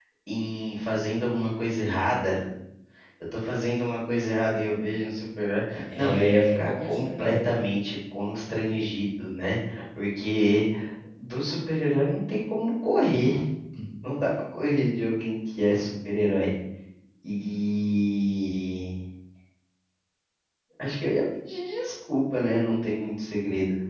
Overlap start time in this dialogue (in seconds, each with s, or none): 5.9 s